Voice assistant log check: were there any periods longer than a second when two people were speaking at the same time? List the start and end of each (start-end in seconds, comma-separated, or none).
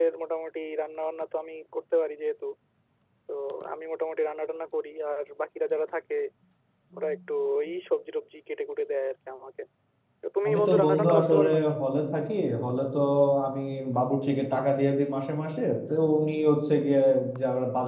10.5-11.7